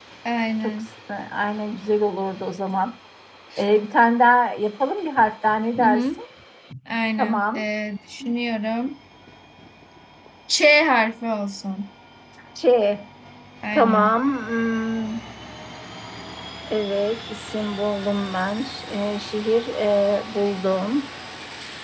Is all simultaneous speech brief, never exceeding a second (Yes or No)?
Yes